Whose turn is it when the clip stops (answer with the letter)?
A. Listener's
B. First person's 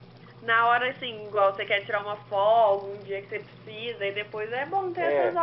A